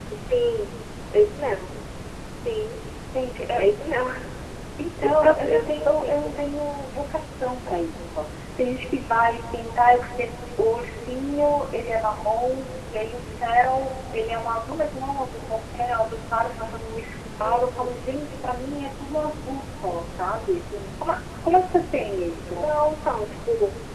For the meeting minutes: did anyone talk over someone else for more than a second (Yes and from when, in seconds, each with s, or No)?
Yes, from 5.0 s